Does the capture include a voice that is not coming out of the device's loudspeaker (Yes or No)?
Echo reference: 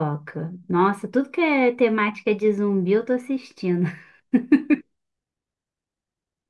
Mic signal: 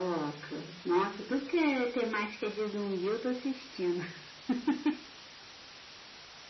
No